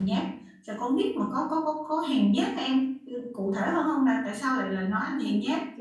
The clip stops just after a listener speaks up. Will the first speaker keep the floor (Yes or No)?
No